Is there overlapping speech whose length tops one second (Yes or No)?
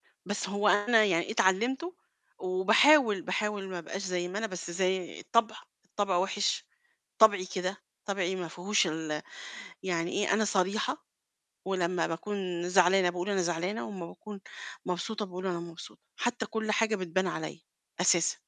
No